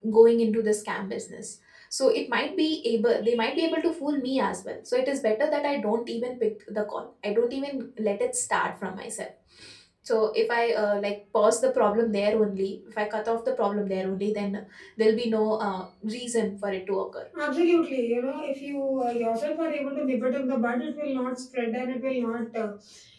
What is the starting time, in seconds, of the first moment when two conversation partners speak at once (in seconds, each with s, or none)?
none